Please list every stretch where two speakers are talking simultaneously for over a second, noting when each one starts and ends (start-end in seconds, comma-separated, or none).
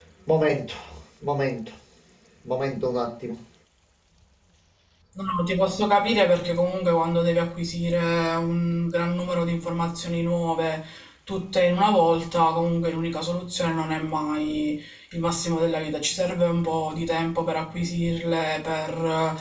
none